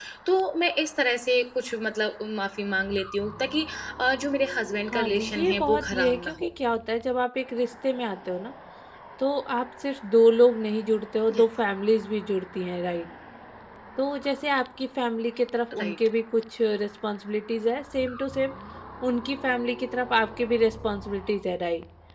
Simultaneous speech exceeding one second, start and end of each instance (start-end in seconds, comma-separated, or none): 4.9-6.5